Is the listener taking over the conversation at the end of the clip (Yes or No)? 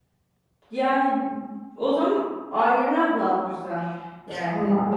Yes